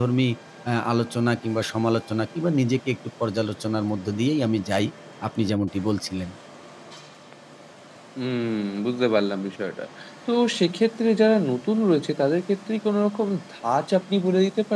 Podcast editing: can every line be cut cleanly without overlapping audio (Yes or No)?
Yes